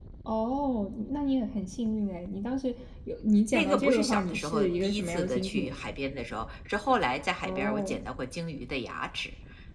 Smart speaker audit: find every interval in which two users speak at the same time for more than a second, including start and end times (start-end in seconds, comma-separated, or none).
3.5-5.6